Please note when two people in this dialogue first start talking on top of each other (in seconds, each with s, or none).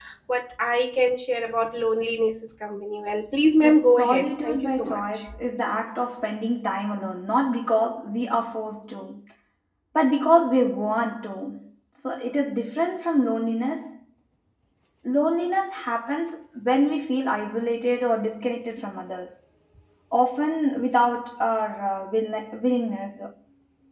3.6 s